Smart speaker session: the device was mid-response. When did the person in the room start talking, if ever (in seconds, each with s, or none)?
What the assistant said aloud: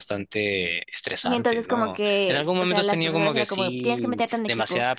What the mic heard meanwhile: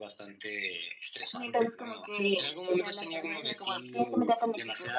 none